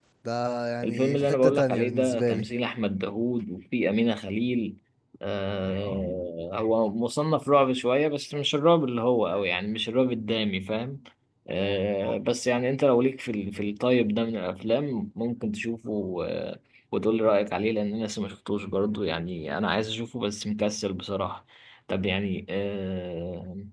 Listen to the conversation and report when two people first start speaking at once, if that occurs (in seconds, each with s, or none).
0.8 s